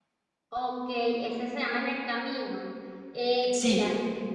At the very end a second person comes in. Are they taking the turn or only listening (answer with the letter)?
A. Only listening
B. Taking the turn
A